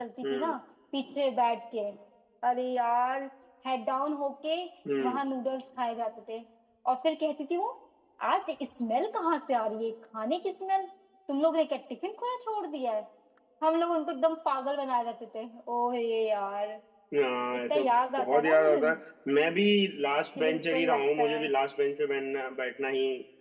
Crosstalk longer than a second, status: present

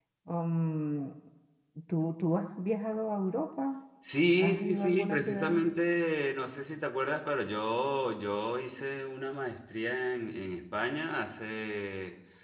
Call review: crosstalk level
present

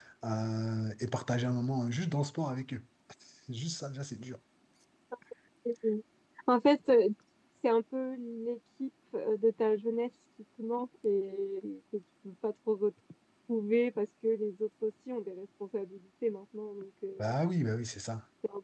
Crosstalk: none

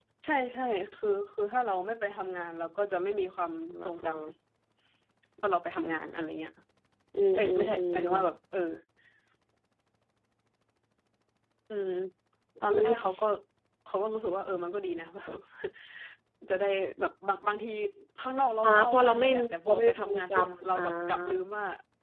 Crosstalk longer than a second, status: present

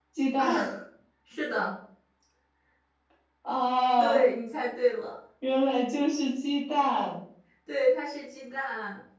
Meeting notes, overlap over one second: none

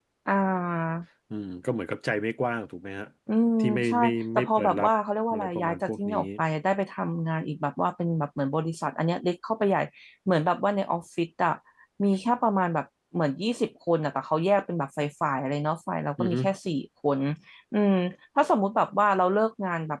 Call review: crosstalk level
present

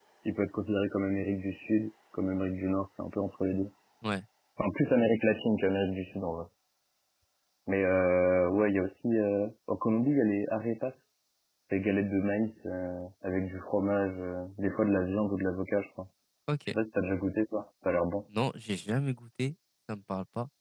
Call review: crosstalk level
none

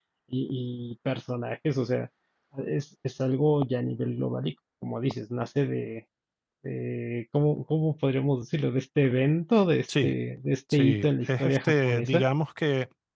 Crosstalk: present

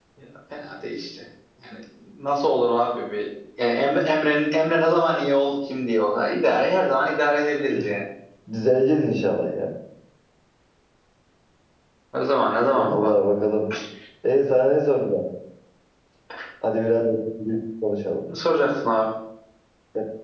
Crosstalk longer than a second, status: none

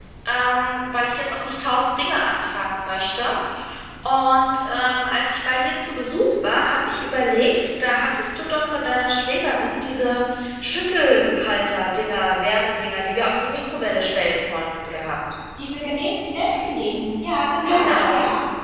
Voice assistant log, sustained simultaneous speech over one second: none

